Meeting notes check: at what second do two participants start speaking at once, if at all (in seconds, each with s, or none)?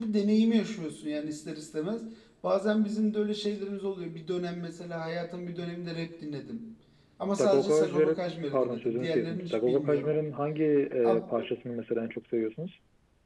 7.4 s